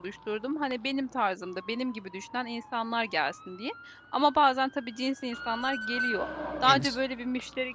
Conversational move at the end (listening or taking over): listening